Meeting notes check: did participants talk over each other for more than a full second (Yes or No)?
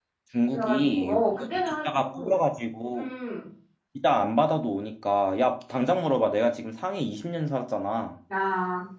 Yes